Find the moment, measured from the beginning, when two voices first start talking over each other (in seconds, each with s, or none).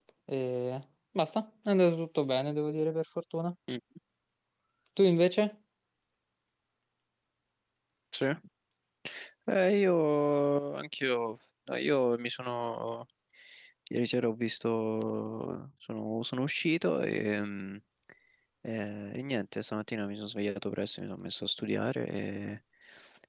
none